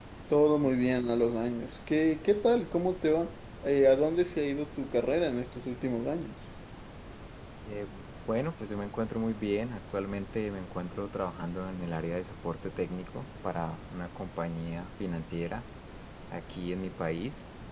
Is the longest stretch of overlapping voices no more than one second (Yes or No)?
Yes